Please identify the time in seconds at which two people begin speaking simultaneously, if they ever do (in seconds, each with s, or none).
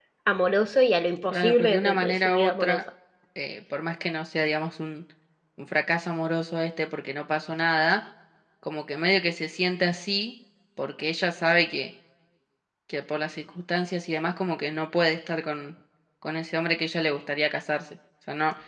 1.3 s